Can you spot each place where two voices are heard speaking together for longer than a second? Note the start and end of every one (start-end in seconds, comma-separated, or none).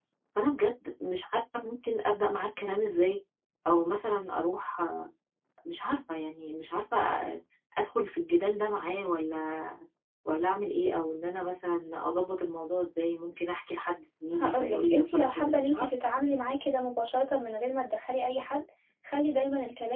14.3-15.9